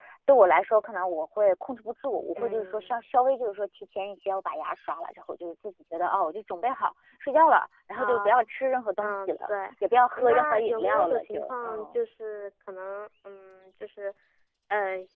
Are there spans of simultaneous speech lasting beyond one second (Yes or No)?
Yes